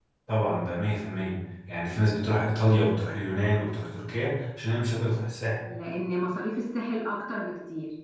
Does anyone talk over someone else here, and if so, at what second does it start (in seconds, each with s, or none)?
none